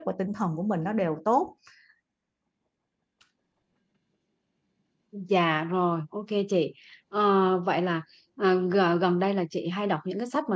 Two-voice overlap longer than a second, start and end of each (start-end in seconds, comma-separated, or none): none